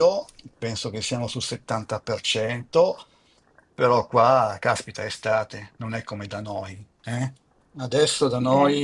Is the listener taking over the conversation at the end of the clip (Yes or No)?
No